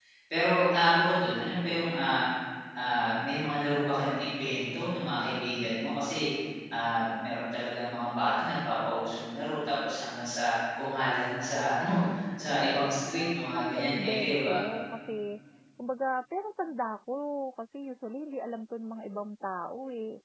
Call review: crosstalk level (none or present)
present